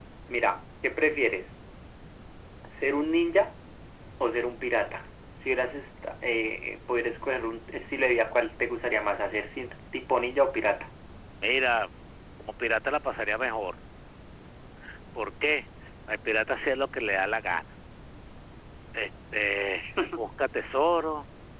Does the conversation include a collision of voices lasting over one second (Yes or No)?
No